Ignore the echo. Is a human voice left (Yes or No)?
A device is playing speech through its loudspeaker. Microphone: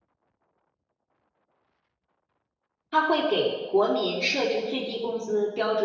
Yes